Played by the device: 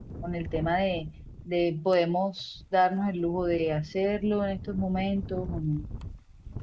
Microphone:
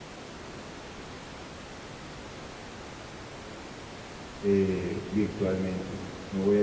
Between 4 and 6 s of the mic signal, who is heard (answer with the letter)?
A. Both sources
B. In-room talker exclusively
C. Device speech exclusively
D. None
B